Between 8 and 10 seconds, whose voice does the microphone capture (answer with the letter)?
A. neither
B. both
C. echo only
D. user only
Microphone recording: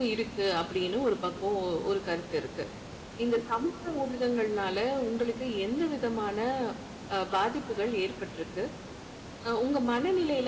D